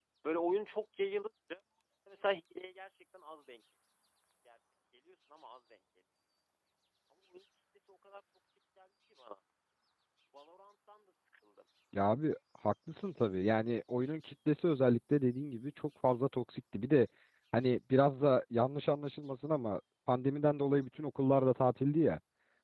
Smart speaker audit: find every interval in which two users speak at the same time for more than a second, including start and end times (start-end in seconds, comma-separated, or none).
none